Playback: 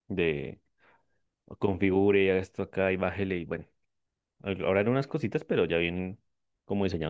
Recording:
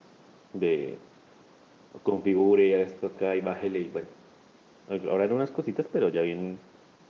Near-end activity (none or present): none